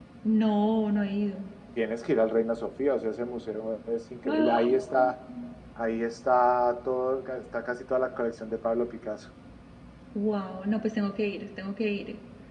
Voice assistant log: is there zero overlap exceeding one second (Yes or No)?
Yes